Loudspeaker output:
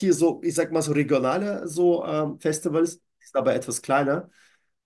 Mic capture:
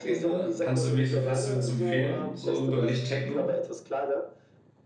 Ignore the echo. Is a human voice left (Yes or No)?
Yes